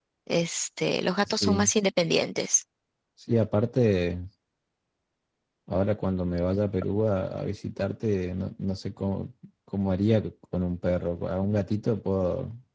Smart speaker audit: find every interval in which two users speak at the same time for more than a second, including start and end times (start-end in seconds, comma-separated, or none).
none